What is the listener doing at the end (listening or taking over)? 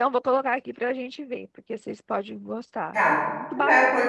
taking over